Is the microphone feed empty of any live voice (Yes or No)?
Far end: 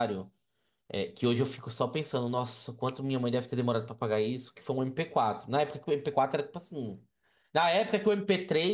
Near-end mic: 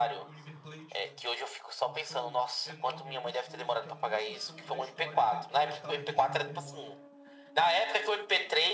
No